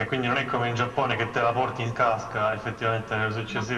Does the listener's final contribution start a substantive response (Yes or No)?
No